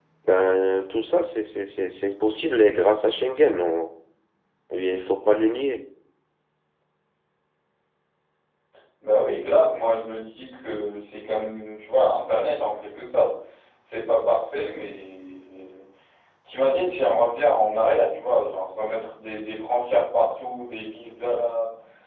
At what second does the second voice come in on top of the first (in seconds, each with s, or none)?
none